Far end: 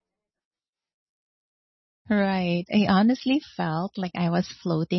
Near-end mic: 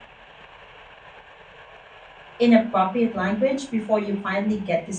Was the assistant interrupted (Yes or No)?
Yes